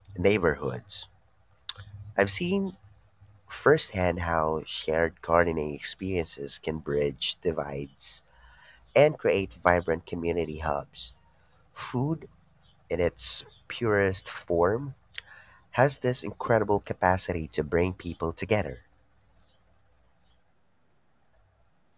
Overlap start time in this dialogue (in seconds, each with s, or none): none